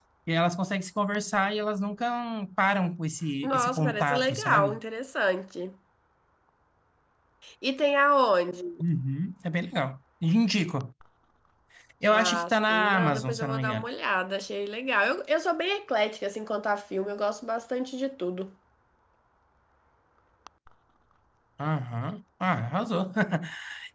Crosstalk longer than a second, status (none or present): present